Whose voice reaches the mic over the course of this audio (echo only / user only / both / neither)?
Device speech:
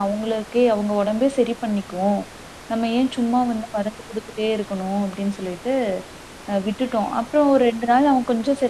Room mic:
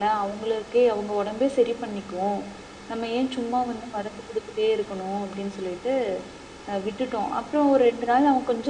echo only